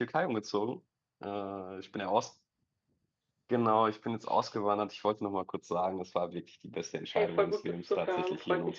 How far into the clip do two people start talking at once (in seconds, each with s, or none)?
7.1 s